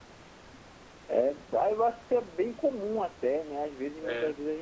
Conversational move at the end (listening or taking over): listening